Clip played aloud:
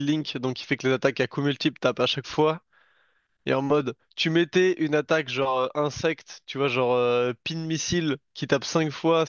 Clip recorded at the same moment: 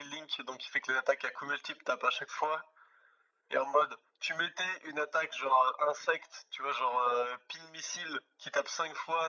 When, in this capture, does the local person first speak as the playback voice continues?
none

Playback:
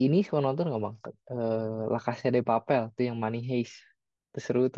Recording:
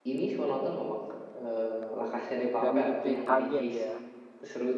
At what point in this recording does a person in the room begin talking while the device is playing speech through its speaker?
2.6 s

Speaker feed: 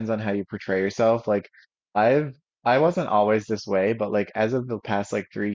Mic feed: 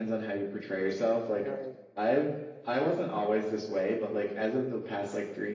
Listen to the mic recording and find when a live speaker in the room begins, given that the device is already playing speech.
1.4 s

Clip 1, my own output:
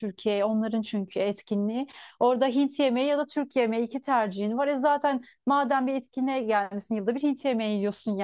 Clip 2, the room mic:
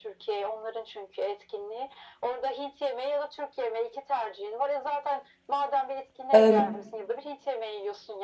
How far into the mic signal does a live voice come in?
6.3 s

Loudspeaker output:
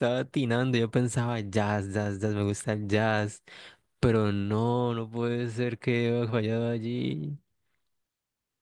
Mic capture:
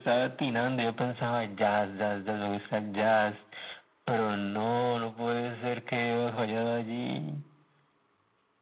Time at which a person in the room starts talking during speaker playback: none

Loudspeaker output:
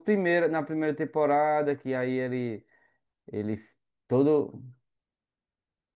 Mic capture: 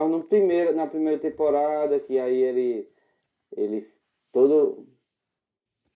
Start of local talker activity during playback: none

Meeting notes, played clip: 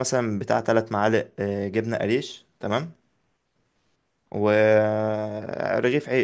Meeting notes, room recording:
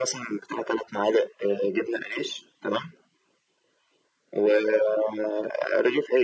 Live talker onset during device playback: none

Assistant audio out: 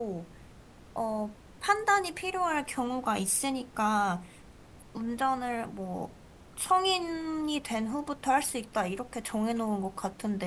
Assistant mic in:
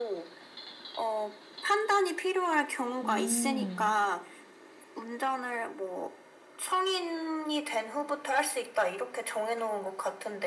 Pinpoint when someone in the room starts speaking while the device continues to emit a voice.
3.0 s

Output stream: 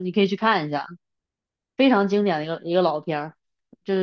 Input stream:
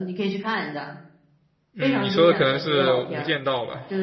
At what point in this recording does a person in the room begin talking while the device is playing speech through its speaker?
1.7 s

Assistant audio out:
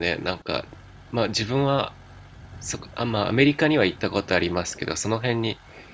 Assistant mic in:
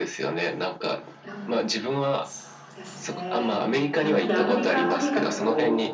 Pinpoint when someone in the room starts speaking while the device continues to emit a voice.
1.2 s

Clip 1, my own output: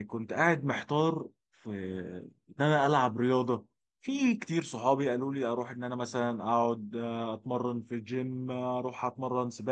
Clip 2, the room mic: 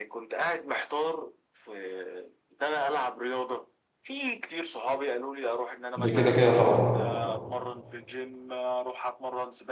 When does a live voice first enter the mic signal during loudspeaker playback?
6.0 s

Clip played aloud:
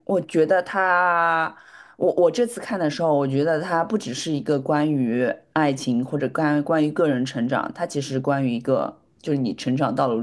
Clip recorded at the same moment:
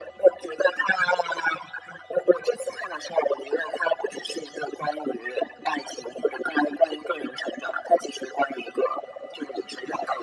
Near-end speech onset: none

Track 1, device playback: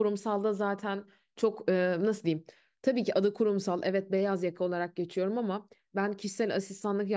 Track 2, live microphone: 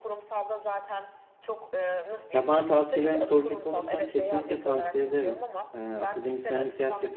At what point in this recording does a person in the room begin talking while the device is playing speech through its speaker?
2.3 s

